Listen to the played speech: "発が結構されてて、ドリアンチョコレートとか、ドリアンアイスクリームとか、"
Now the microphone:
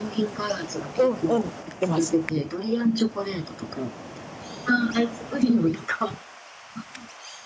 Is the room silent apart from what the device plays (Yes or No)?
No